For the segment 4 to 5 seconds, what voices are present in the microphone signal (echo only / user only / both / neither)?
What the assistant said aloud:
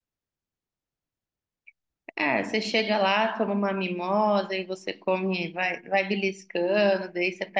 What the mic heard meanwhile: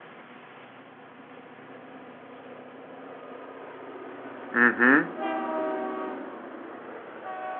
user only